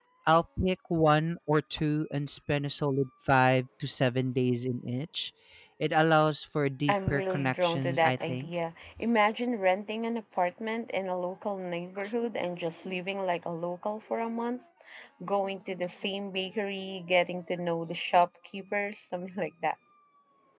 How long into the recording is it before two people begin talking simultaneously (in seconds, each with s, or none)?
6.9 s